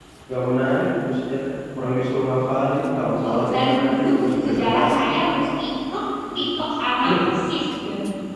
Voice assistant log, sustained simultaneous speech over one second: present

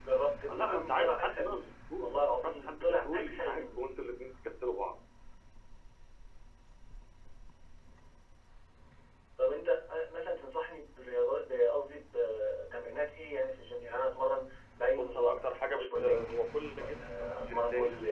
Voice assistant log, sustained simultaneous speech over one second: present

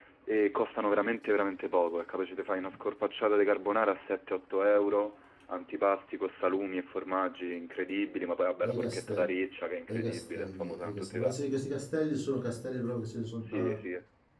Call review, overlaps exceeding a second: present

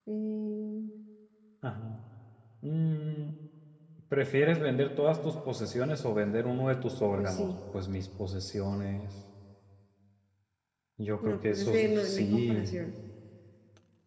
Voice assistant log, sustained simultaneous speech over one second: present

